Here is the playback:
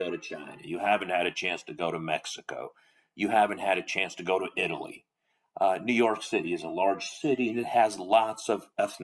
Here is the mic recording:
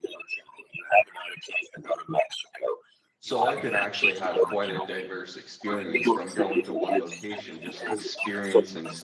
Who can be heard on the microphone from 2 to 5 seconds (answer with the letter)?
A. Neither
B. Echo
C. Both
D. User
C